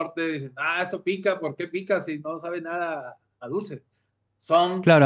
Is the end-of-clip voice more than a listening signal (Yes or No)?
Yes